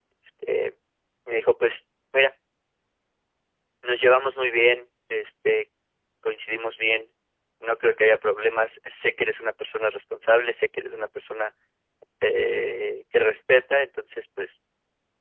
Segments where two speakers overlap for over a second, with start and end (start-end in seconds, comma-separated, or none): none